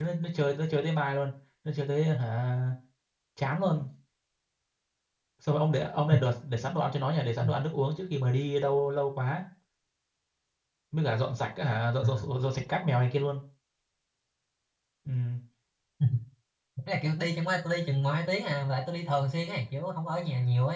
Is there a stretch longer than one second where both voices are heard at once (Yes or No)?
No